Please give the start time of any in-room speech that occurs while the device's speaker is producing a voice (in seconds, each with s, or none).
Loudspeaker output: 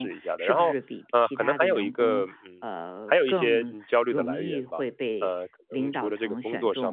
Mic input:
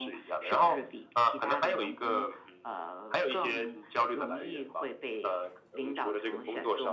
none